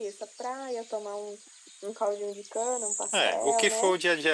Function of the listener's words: taking over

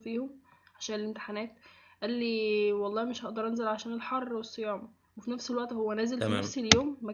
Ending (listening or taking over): listening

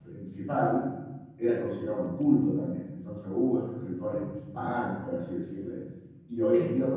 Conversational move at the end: listening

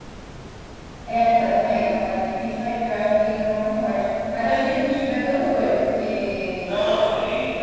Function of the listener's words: taking over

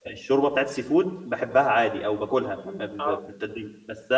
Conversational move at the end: listening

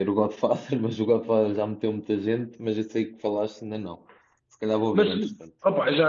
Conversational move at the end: taking over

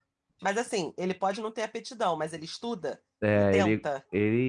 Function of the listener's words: taking over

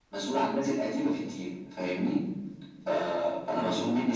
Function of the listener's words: listening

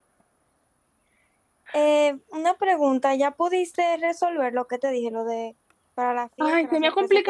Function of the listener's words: taking over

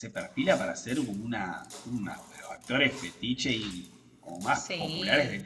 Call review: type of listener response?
listening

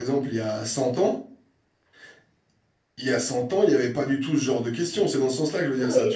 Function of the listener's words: taking over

